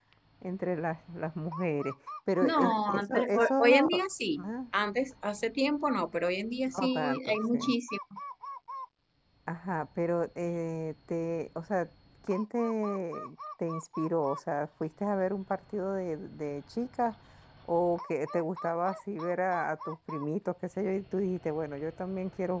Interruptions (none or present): present